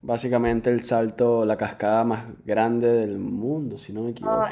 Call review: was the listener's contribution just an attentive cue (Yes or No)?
No